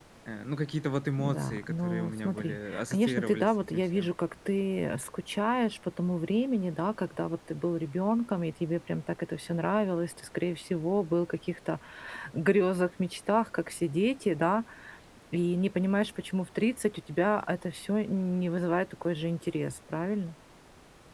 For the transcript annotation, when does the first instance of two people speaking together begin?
1.2 s

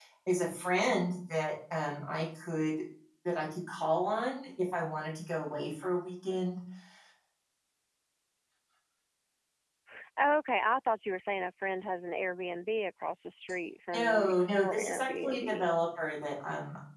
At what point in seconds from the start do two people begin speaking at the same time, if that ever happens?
13.9 s

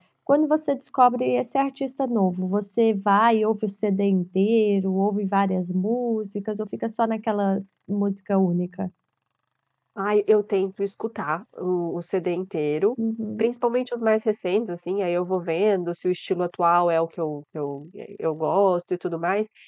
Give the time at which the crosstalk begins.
none

